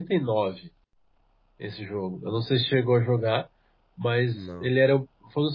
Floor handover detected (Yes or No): No